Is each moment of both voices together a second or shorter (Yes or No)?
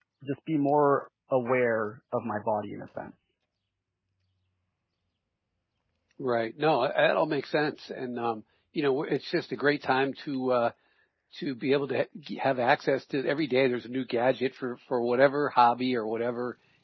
Yes